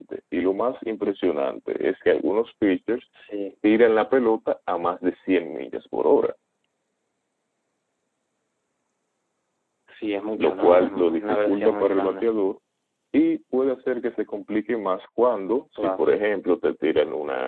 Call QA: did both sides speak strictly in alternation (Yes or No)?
No